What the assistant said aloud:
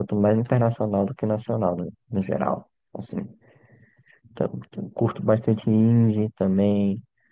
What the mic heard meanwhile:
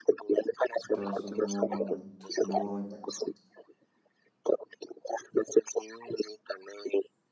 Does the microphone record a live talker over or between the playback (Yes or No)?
Yes